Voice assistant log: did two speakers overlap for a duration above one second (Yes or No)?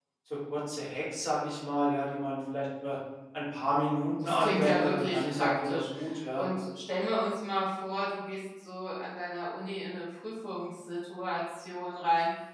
Yes